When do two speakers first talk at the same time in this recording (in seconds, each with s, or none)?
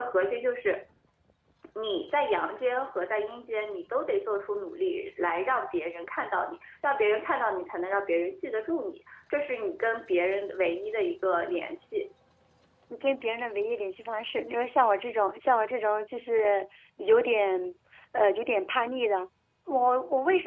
none